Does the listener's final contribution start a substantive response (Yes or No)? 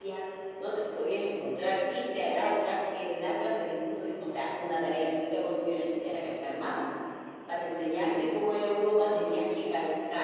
No